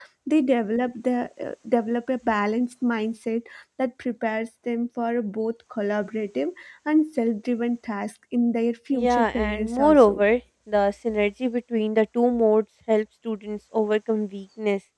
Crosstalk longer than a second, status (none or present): present